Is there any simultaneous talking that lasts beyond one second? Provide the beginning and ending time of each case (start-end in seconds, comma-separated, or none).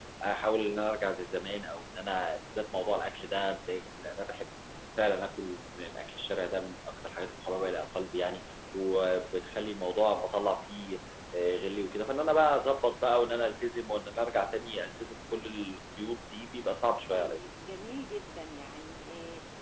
none